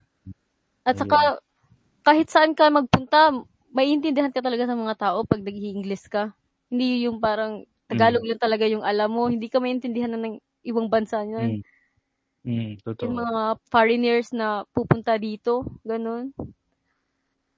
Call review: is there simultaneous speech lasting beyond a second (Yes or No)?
No